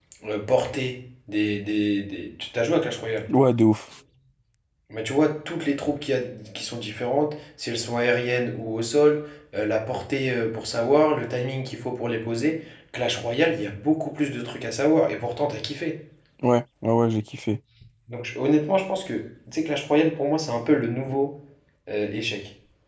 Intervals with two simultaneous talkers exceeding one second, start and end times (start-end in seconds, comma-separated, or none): none